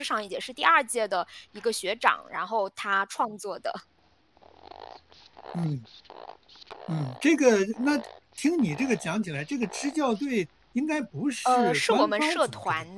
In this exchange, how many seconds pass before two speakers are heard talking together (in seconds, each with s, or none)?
11.4 s